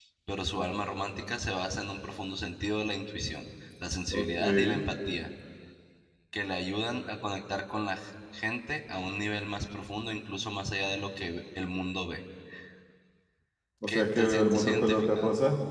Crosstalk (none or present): present